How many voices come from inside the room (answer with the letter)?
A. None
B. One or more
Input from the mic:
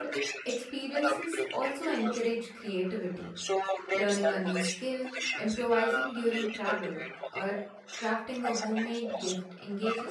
B